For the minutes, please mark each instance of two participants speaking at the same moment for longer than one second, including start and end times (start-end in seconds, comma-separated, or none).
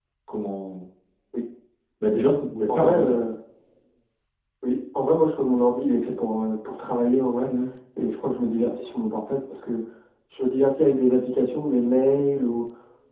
none